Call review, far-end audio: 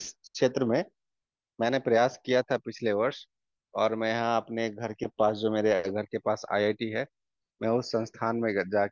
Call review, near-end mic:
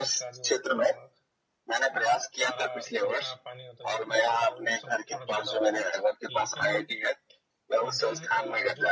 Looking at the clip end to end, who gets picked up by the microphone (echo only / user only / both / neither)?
both